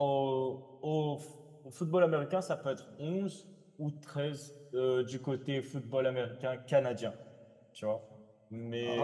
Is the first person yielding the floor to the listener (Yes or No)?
No